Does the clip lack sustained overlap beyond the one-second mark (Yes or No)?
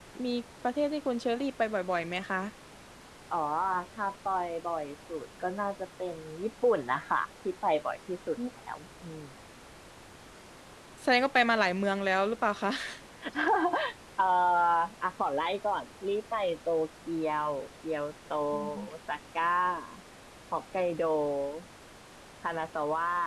Yes